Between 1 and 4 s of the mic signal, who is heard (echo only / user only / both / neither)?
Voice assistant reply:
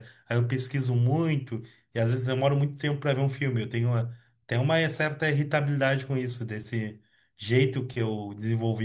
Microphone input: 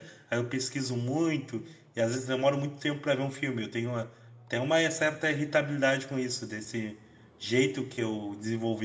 echo only